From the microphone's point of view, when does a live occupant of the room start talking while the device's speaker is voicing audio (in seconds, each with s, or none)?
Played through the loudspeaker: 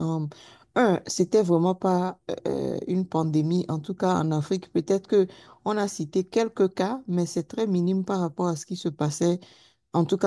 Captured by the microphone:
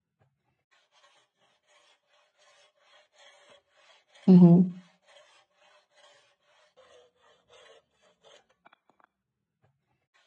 4.3 s